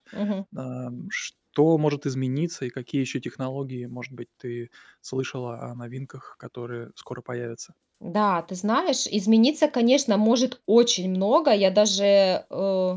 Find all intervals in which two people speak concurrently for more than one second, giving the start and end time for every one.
none

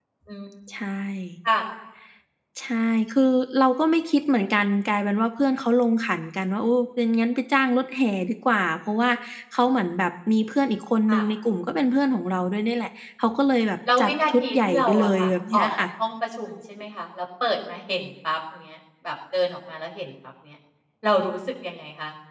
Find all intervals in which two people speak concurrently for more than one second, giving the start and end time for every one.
14.0-15.7

